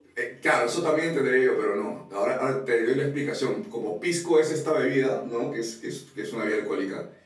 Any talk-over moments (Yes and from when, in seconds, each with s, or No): No